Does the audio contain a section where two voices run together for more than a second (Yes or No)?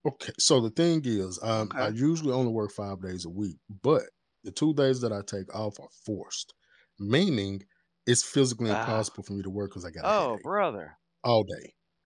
No